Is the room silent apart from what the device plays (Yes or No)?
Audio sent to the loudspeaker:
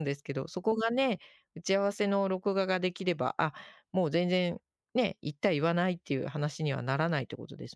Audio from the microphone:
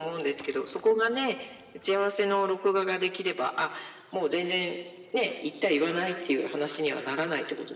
Yes